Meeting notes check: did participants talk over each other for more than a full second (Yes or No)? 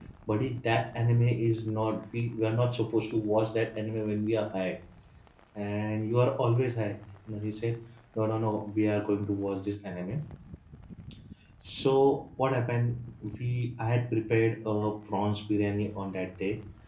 No